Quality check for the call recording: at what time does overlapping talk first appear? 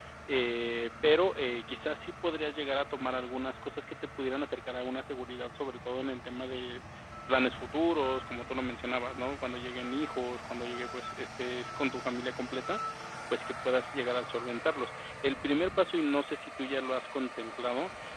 none

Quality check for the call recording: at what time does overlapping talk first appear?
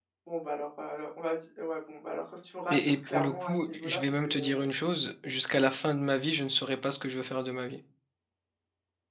2.7 s

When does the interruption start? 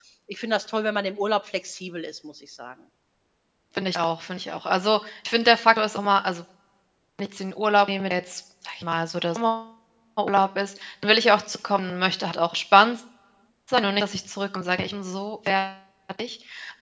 none

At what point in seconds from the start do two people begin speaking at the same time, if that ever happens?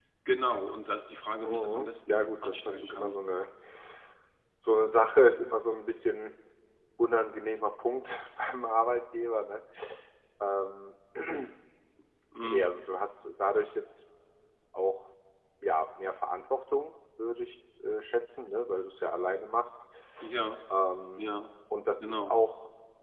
1.4 s

